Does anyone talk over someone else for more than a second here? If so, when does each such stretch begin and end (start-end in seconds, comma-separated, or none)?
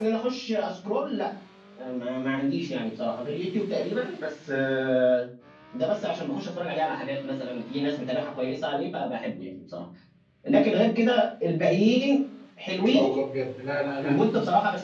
none